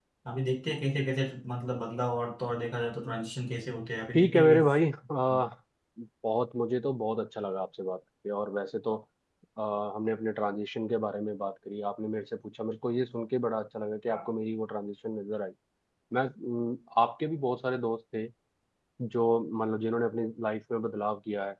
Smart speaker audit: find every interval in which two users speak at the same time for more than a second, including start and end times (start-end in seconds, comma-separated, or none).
none